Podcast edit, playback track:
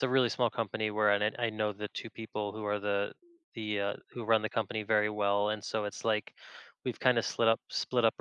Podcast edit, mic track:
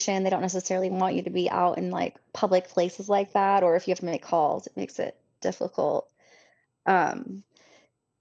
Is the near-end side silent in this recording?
No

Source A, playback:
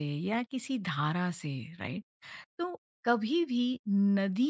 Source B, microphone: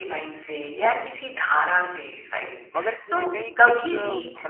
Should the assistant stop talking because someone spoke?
Yes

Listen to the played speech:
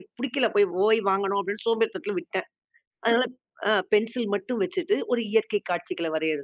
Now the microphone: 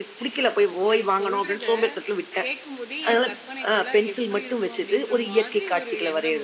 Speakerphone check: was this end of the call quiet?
No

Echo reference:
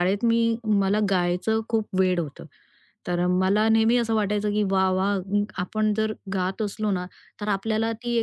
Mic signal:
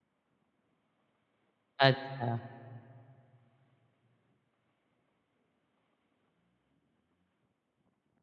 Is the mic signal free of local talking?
No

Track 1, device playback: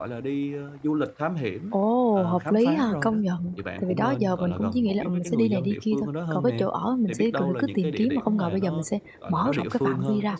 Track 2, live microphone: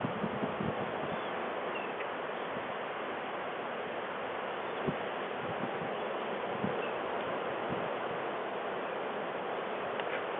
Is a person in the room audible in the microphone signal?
No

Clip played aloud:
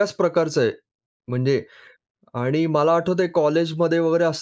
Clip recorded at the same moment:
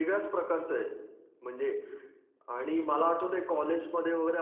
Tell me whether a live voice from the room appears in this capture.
No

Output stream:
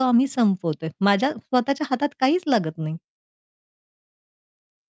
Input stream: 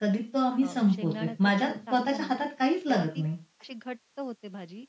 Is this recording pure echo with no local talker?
No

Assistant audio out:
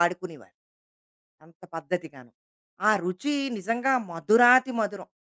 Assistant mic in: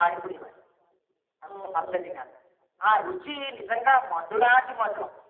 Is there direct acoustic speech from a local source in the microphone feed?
Yes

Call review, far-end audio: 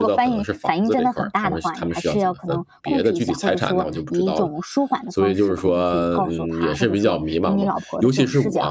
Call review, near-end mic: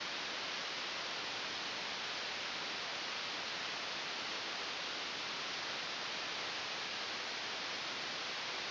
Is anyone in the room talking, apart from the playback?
No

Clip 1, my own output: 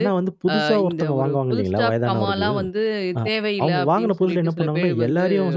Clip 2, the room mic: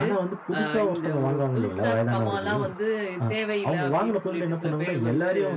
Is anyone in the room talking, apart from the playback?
No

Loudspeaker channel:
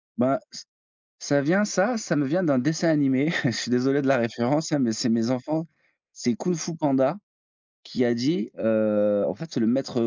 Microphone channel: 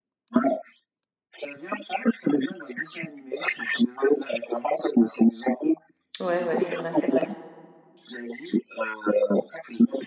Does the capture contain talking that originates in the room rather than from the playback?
Yes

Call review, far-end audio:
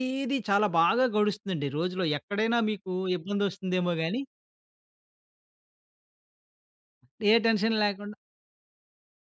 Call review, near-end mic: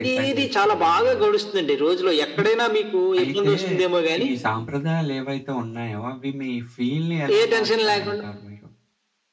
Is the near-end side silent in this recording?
No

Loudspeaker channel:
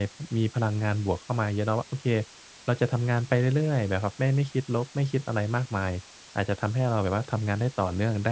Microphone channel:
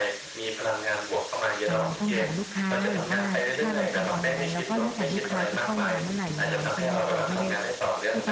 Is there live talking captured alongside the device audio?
Yes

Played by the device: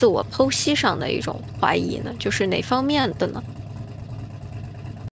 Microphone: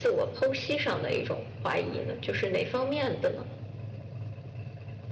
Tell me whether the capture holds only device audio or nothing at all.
Yes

